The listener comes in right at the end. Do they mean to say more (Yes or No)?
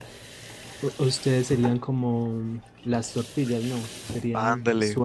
Yes